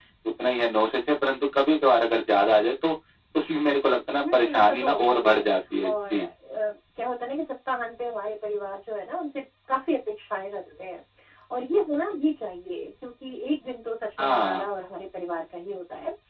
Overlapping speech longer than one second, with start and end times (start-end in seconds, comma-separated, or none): 4.2-5.4